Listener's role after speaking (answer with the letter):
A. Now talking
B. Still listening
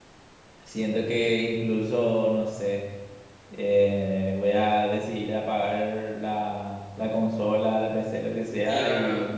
A